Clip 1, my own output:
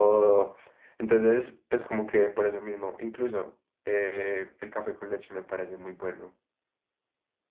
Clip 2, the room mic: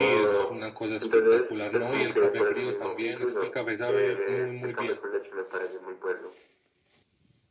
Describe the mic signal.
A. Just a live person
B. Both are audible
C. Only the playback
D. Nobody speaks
B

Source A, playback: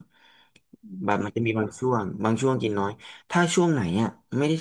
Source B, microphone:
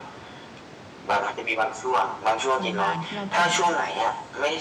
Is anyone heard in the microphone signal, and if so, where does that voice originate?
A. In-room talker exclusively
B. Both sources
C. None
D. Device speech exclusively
B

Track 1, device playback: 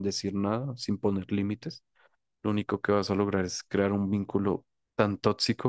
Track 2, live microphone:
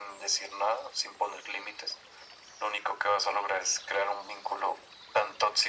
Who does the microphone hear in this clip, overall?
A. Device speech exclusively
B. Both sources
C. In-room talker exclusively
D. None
A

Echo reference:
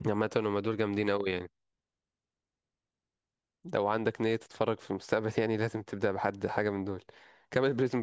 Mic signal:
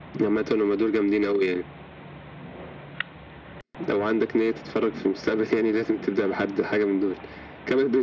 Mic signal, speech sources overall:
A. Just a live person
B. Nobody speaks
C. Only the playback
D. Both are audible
C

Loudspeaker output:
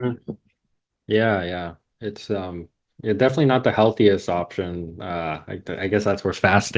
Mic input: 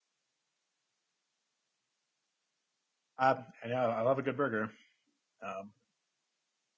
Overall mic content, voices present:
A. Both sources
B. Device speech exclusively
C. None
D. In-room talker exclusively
D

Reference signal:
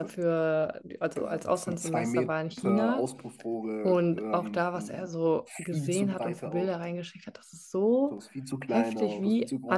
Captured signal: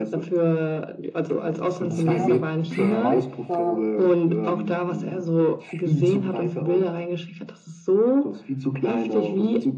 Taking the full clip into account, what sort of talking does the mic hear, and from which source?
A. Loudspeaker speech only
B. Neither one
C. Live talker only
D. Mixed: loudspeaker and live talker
D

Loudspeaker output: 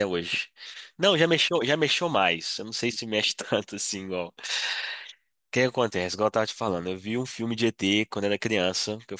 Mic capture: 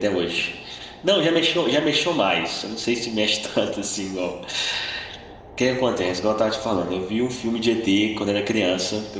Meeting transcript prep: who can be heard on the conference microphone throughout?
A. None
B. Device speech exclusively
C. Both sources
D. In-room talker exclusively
B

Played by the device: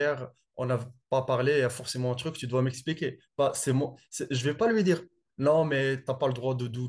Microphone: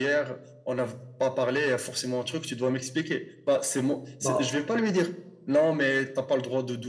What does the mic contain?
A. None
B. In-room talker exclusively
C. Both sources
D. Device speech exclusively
C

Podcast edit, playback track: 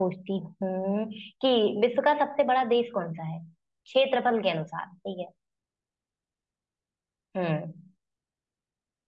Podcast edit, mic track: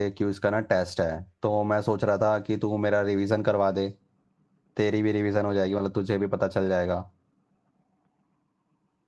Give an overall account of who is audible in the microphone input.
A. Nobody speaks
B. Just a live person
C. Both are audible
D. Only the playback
B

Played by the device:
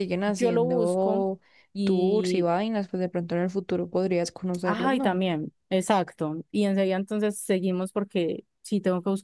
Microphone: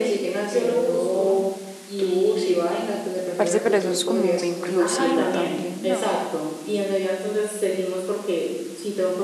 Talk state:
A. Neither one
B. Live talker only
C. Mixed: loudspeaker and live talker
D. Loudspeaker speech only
C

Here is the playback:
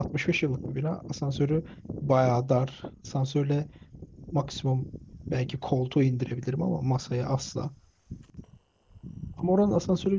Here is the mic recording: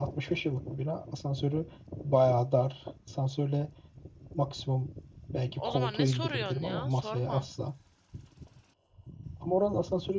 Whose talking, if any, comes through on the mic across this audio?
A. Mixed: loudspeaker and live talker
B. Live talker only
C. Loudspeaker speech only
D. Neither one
A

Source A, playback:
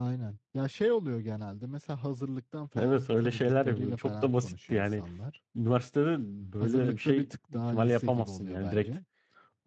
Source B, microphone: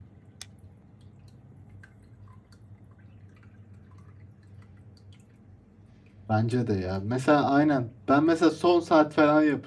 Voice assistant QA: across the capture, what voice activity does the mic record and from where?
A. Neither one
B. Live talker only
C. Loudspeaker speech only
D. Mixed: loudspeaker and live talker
B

